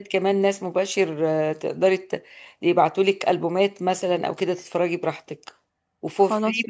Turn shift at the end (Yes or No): No